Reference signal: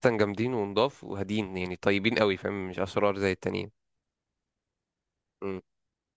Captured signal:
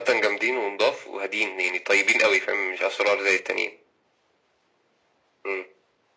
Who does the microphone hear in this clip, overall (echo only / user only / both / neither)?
echo only